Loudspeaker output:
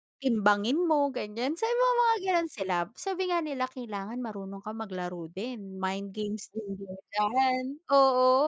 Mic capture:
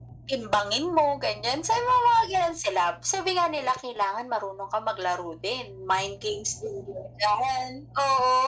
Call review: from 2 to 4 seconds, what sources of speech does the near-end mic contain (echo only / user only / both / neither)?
echo only